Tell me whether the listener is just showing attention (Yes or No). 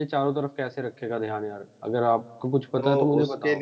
No